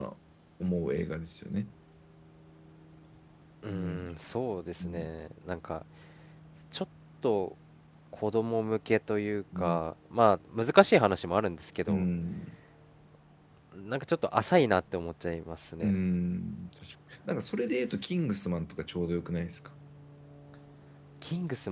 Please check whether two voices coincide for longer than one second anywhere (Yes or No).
No